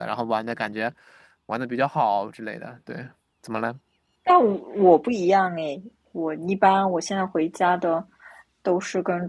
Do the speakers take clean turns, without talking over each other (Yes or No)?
Yes